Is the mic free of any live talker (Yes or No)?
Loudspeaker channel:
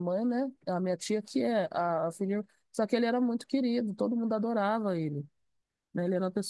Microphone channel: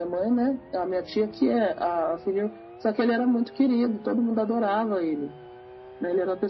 Yes